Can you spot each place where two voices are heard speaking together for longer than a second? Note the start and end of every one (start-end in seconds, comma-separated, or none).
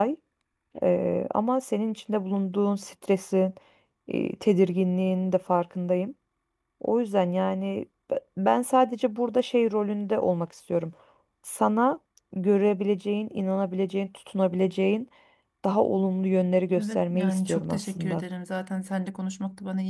16.8-18.2